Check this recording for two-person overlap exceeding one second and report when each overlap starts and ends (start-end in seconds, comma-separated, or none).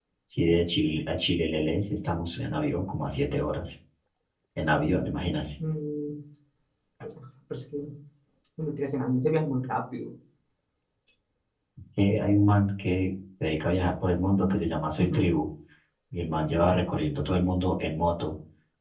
none